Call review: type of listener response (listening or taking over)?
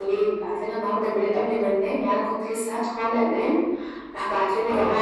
listening